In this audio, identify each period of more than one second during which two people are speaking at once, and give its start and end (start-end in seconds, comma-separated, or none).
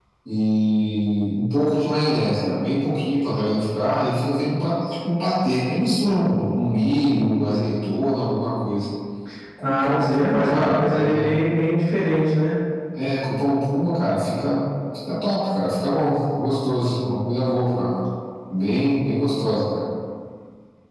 9.6-11.3